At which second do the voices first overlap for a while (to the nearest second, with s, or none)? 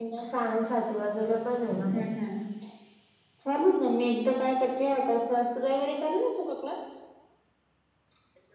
none